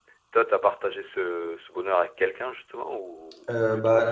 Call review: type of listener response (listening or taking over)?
taking over